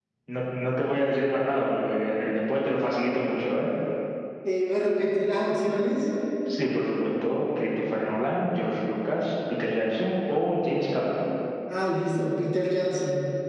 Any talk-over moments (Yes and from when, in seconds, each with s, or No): No